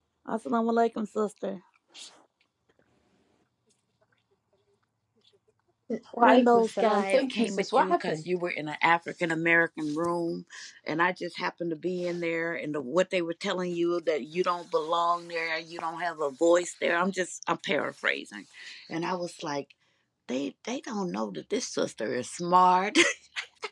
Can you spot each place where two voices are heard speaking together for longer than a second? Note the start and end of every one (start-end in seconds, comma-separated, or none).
6.2-8.2